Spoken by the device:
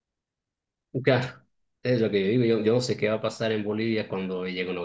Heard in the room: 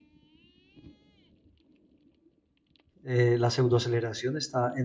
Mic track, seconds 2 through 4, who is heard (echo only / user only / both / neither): user only